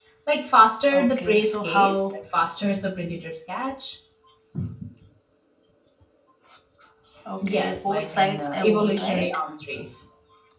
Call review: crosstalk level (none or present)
present